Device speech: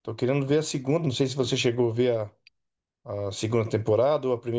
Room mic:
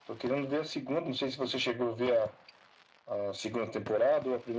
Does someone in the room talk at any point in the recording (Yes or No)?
No